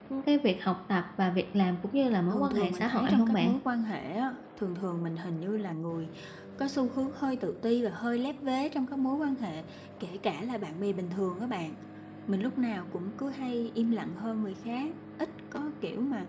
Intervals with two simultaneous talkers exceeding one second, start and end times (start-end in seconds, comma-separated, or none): 2.3-3.5